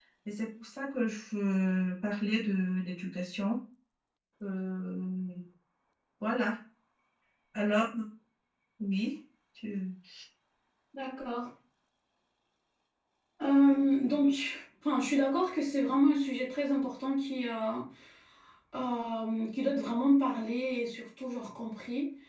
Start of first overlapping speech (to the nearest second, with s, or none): none